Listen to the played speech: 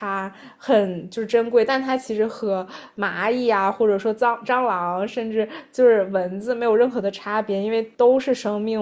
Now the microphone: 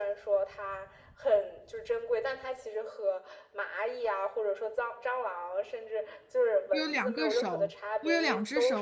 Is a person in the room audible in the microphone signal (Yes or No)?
Yes